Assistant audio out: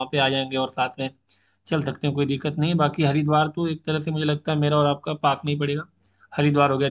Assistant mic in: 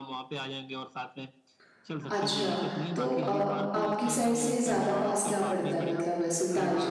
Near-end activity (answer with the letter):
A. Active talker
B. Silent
A